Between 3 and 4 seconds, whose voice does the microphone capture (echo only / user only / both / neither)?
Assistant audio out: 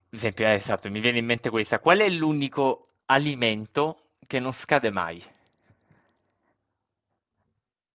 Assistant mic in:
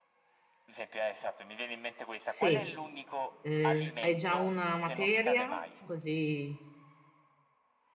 both